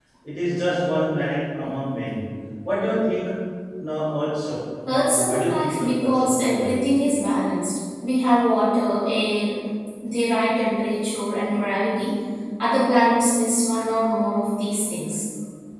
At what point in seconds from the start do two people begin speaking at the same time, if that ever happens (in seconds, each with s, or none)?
4.9 s